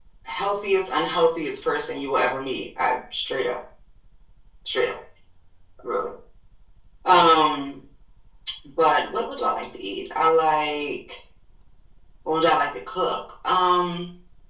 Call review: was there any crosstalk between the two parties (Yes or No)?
No